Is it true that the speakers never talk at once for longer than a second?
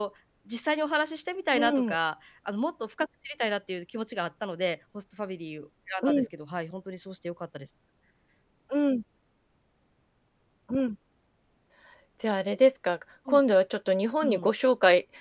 Yes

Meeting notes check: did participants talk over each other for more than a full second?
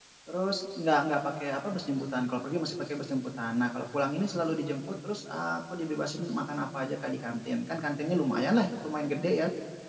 No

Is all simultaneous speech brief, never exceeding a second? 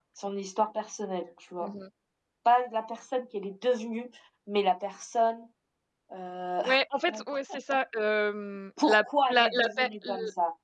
No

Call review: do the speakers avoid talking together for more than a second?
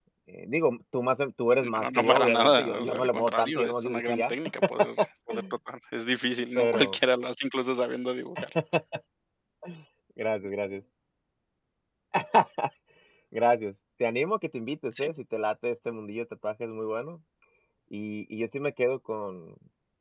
No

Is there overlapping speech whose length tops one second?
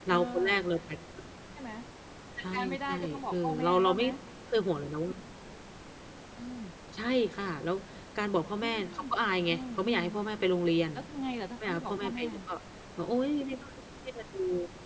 Yes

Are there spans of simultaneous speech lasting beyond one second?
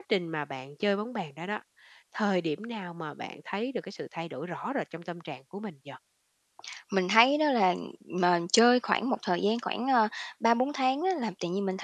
No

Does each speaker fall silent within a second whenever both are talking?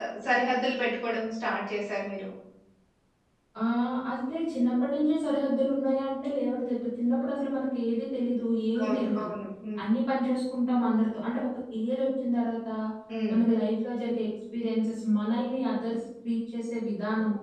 Yes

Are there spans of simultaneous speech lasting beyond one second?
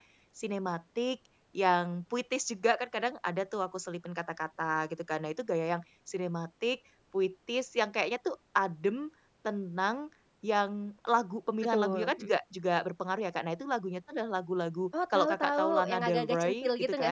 Yes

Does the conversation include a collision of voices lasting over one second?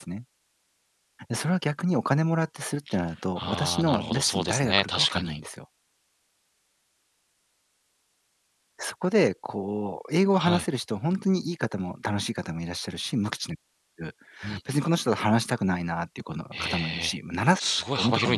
Yes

